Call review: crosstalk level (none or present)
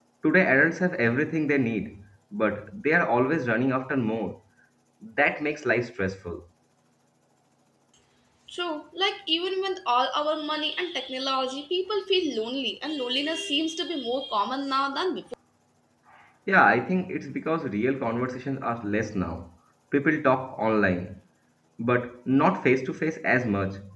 none